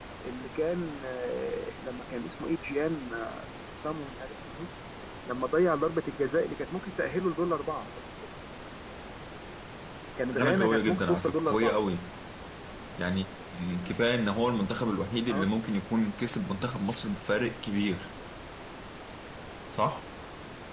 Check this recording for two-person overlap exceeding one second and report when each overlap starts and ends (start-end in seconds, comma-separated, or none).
10.4-11.7